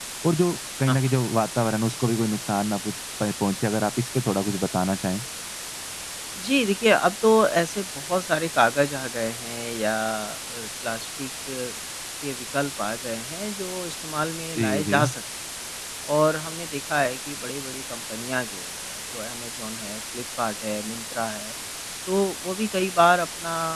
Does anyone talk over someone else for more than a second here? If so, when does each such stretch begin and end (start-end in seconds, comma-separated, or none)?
none